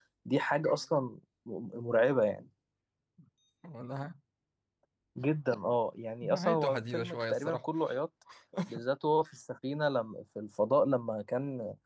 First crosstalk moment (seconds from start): 6.2 s

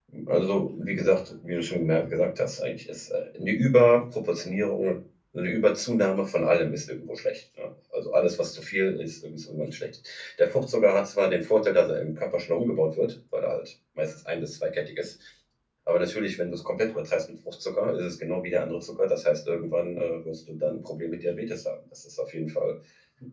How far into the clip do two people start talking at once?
none

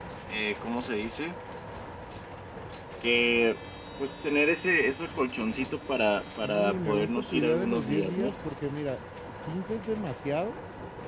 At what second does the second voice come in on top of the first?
6.4 s

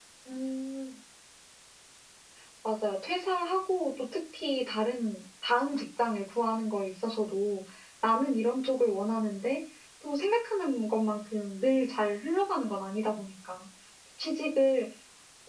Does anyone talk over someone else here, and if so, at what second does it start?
none

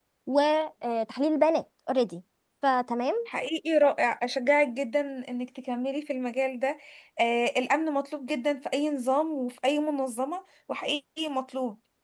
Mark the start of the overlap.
none

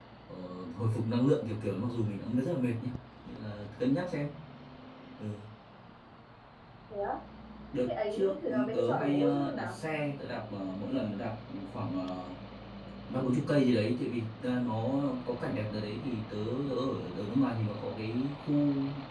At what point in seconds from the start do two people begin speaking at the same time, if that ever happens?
7.8 s

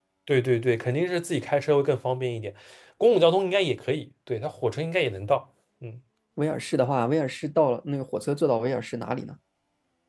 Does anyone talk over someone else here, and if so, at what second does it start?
none

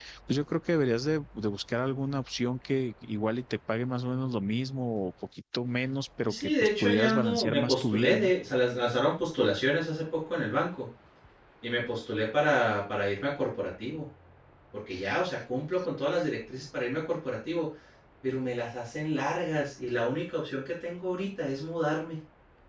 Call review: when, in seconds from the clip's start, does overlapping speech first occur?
6.3 s

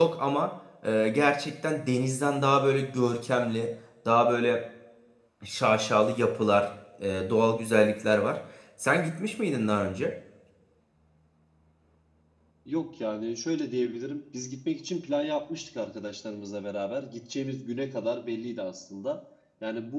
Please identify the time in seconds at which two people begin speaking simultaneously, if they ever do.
none

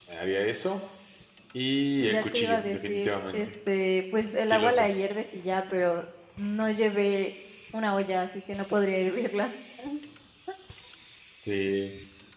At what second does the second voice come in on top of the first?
2.0 s

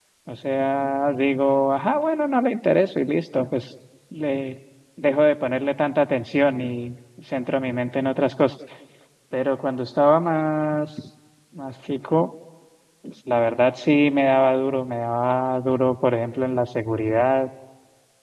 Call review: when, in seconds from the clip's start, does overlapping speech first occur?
none

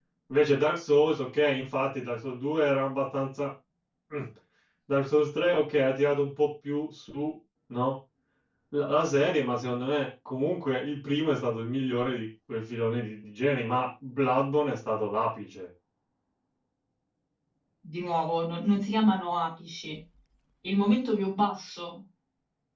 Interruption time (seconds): none

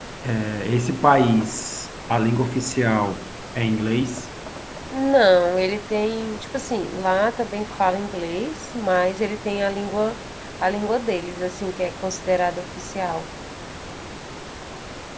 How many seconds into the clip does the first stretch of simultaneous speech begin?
none

